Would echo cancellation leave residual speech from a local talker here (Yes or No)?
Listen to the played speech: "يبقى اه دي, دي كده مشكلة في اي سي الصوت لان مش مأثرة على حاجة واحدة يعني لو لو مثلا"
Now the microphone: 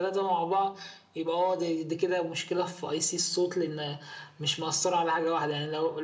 No